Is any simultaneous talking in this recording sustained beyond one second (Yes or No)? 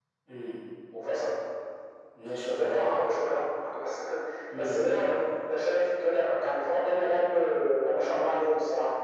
No